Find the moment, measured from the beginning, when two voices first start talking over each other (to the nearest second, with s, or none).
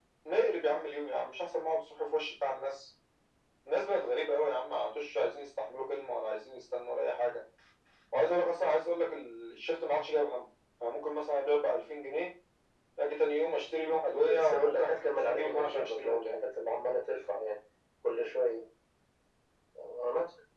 14 s